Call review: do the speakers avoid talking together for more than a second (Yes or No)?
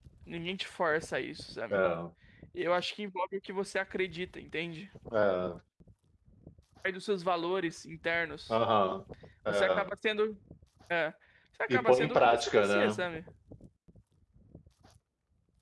No